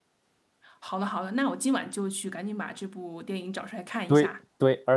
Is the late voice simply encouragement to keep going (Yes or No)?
No